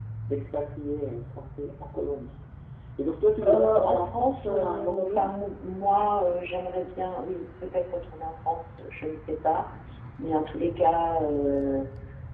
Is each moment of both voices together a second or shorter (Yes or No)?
No